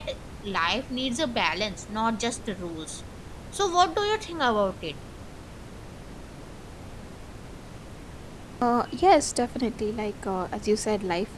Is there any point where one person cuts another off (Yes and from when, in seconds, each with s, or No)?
No